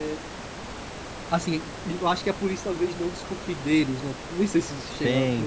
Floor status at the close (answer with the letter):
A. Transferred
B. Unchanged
A